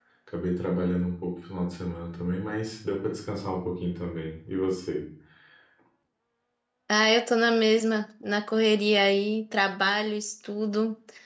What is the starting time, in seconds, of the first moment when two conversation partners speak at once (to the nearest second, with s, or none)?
none